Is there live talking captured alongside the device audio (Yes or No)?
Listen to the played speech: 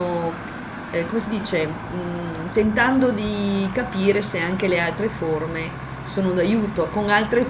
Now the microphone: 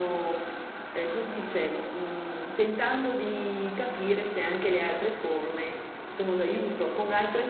No